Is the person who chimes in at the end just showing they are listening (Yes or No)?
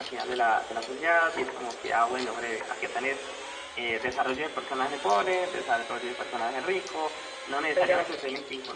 Yes